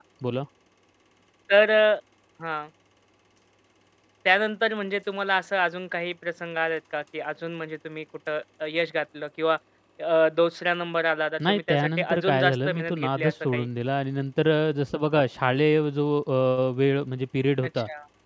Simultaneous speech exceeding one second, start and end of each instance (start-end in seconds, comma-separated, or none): 11.5-13.7